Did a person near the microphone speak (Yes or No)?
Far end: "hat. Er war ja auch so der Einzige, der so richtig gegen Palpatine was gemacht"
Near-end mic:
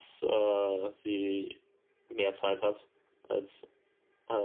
Yes